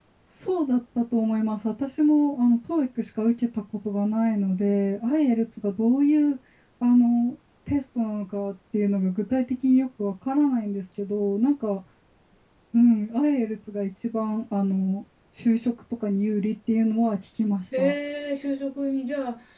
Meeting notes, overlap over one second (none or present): none